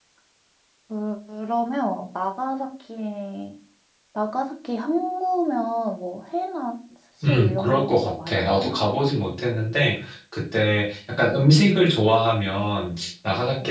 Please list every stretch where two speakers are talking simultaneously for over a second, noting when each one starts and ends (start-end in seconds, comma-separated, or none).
7.2-8.8